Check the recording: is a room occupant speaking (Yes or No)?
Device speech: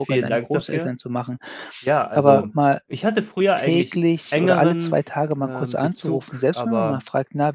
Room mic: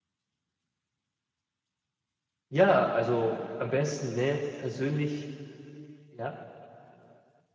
Yes